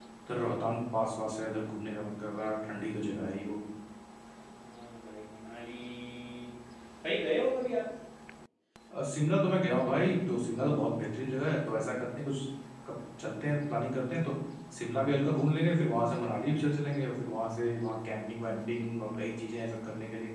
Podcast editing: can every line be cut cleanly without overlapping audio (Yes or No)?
Yes